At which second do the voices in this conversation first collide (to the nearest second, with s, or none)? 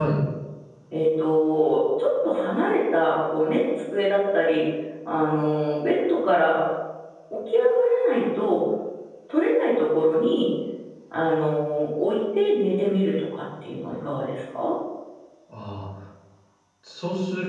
none